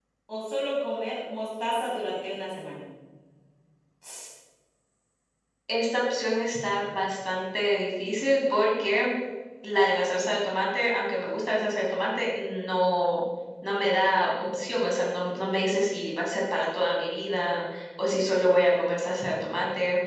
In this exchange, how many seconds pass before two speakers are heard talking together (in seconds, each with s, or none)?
none